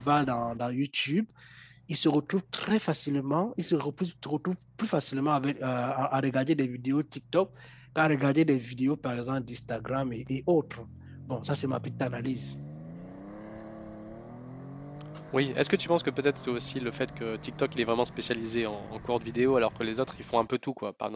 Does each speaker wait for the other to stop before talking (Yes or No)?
Yes